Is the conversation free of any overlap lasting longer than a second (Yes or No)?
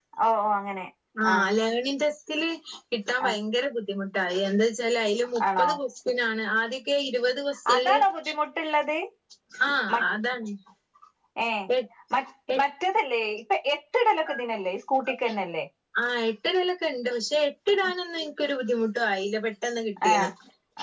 Yes